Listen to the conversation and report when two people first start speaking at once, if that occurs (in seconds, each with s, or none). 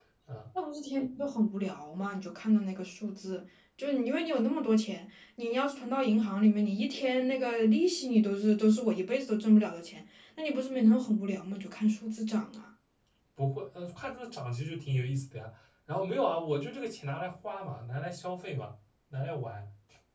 none